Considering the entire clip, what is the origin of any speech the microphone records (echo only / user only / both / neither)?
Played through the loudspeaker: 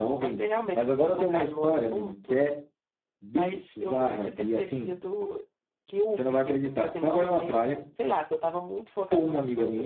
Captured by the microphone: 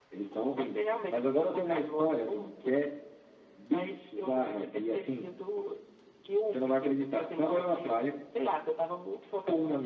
echo only